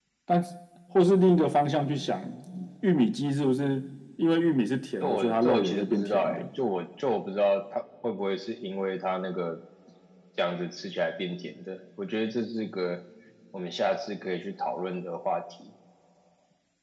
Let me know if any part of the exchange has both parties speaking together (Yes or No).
Yes